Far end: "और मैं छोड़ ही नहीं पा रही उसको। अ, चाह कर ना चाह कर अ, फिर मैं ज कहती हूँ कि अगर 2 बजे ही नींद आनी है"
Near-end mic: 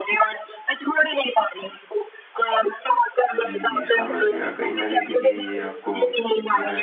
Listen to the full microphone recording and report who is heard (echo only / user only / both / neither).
both